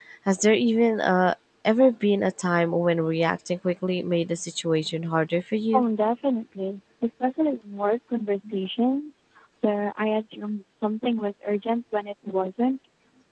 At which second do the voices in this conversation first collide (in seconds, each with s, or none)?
none